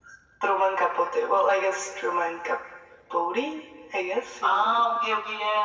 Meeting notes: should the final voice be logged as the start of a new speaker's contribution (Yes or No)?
Yes